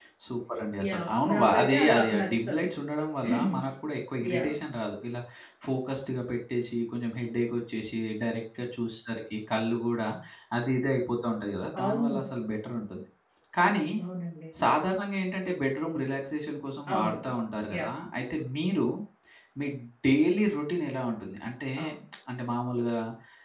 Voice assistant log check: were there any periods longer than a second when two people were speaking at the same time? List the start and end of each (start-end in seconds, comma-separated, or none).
0.9-2.7